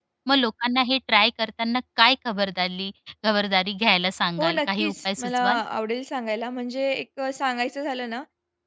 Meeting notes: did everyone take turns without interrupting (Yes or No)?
No